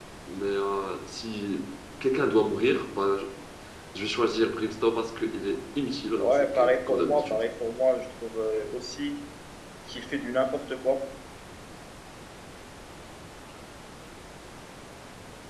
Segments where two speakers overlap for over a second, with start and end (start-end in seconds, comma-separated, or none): 6.2-7.4